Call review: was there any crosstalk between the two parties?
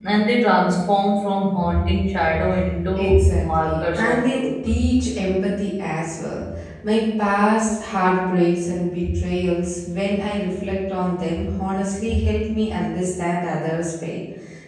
Yes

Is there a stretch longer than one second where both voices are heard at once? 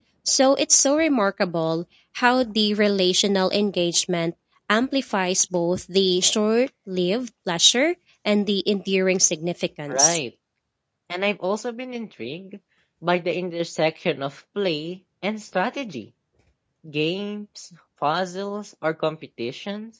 No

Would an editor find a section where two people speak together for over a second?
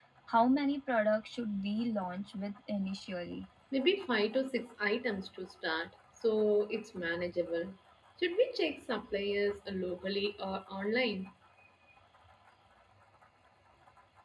No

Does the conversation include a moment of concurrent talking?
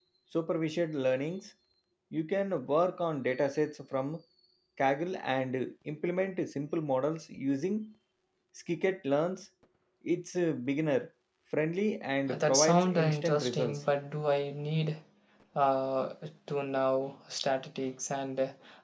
Yes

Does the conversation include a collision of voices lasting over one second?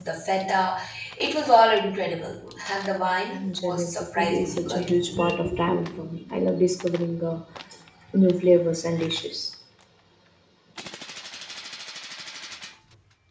Yes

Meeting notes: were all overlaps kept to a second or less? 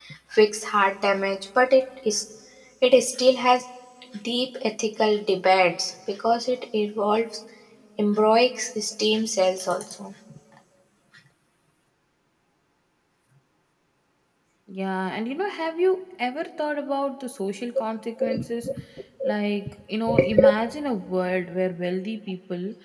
Yes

